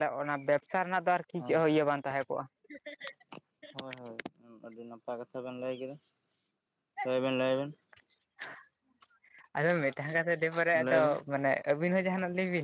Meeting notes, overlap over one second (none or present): none